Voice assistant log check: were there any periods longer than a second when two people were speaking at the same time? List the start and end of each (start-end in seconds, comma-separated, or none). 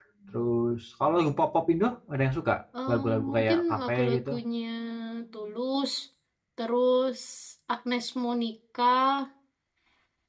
2.9-4.3